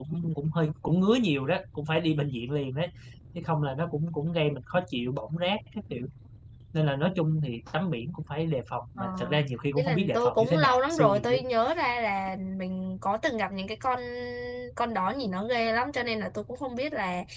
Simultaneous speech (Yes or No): Yes